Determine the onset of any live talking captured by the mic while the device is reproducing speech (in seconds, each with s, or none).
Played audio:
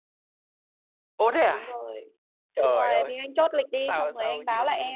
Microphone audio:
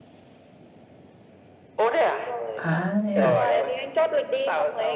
2.6 s